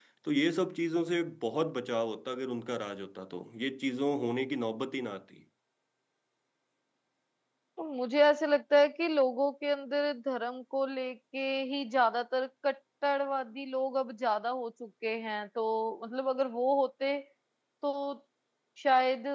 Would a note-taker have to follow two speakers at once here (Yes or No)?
No